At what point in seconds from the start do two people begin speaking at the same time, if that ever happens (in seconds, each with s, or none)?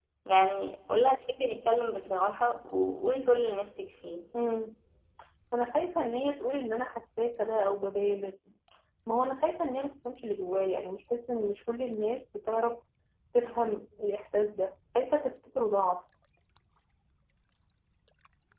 none